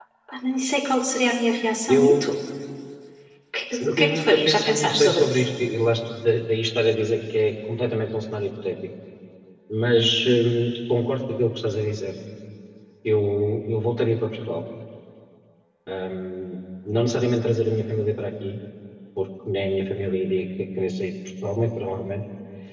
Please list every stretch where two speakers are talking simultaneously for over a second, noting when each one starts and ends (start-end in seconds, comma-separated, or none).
4.0-5.5